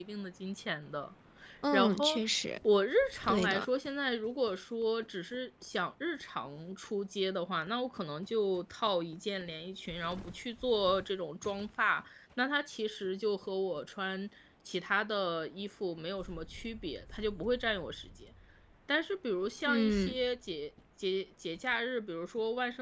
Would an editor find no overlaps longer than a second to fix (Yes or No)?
Yes